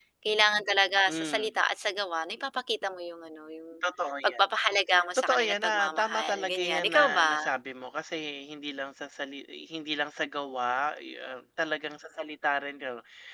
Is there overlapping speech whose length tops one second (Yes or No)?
Yes